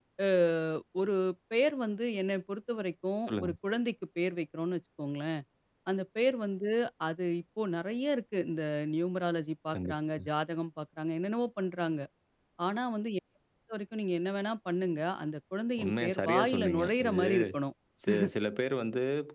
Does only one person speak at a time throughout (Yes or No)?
No